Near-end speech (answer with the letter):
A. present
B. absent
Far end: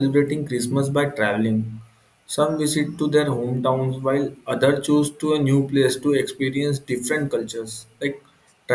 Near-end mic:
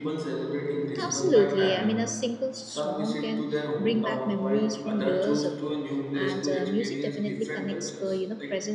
A